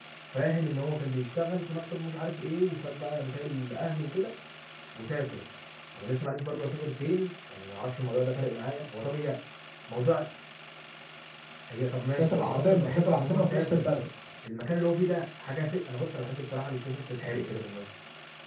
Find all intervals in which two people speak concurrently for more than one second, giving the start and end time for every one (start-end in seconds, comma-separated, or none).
12.2-13.9